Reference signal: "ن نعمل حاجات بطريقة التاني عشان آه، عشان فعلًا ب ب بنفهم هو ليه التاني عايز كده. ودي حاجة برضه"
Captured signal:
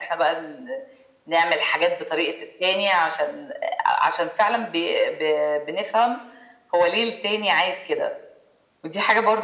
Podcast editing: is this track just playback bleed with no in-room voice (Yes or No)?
Yes